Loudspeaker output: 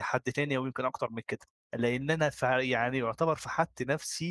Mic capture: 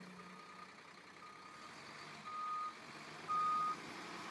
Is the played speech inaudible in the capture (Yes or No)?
Yes